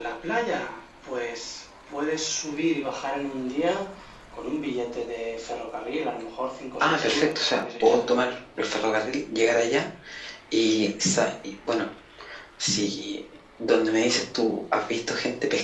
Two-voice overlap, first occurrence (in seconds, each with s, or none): 6.8 s